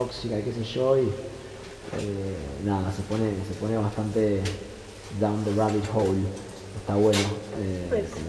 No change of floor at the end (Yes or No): Yes